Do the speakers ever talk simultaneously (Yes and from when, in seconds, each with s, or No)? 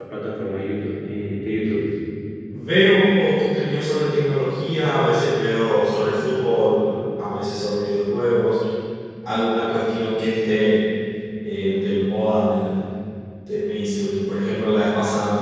No